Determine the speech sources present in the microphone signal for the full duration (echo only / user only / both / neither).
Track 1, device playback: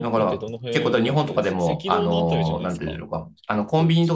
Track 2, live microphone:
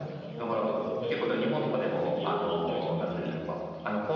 echo only